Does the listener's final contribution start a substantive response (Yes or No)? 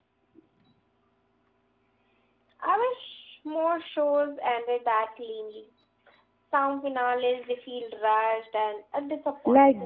Yes